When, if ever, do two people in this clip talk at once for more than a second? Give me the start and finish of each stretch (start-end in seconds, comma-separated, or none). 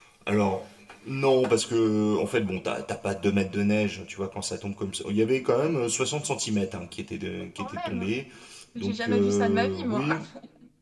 8.8-10.1